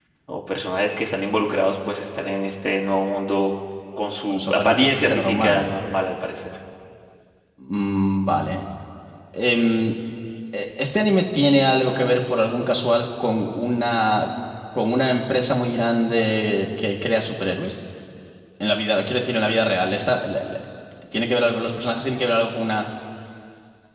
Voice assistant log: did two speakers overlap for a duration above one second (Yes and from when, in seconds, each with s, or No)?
Yes, from 4.3 s